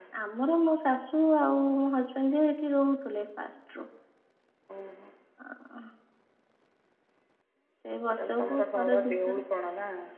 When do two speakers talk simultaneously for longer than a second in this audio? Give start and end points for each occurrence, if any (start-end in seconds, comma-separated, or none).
8.2-9.4